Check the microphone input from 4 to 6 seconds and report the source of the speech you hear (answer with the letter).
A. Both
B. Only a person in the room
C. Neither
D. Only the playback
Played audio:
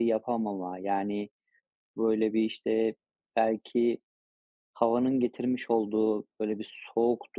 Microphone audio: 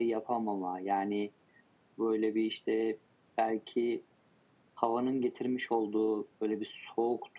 D